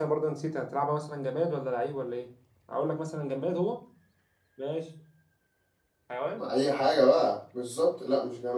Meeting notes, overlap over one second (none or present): none